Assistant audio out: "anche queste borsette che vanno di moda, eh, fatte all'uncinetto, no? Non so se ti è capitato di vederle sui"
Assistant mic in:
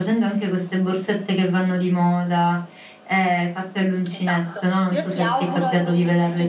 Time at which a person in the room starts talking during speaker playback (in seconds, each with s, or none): 4.1 s